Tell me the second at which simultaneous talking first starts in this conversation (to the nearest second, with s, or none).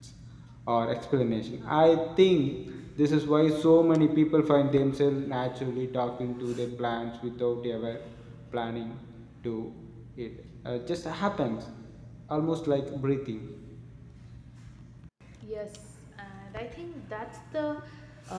none